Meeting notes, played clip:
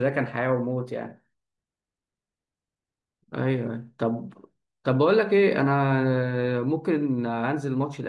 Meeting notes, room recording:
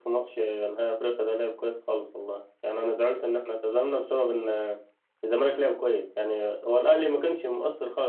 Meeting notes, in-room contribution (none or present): present